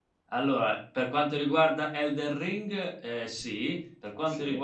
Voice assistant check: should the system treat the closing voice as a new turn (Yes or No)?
No